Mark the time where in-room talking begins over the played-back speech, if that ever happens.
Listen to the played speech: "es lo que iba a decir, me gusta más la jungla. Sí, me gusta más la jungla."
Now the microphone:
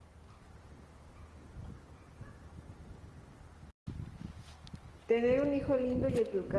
5.1 s

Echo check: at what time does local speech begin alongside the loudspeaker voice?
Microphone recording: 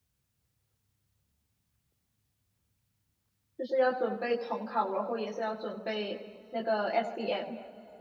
3.6 s

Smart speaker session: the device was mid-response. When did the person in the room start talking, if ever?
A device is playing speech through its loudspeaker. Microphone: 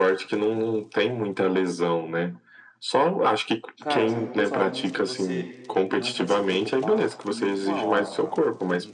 3.8 s

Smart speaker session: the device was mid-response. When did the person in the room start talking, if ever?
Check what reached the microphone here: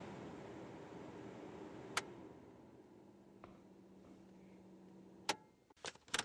none

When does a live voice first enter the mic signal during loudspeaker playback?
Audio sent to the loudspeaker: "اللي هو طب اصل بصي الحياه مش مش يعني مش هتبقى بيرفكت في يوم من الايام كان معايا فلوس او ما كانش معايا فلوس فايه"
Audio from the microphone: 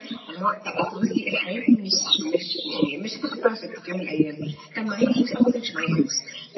none

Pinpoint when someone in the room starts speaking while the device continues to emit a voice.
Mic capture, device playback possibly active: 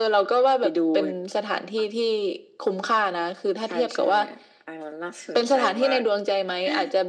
none

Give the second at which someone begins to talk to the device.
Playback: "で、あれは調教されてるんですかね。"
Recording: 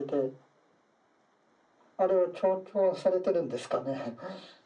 none

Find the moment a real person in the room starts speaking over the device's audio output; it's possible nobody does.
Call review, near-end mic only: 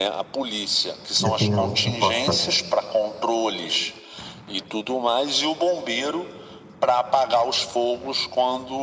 1.2 s

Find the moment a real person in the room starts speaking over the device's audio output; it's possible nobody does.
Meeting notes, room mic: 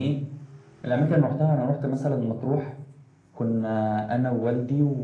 none

